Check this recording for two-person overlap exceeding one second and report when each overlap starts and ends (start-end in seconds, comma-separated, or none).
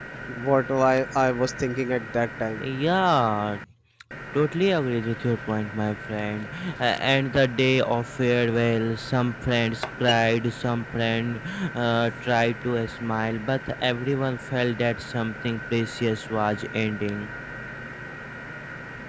none